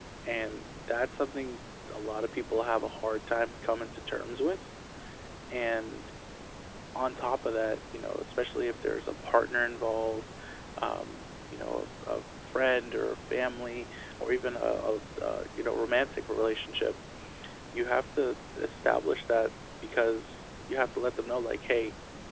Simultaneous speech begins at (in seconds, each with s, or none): none